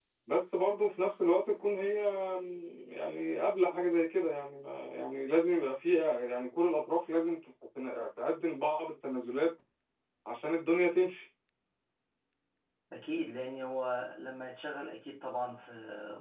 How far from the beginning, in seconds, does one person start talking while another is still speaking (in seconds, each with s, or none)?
none